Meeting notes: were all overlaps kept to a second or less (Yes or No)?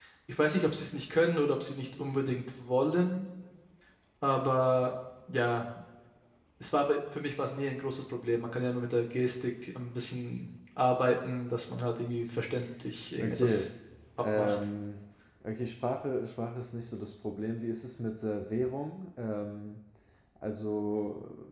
Yes